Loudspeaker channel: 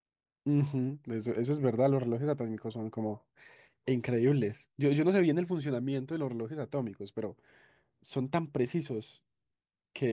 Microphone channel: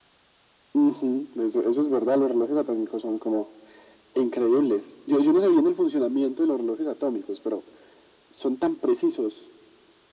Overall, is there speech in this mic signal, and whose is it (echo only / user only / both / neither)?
echo only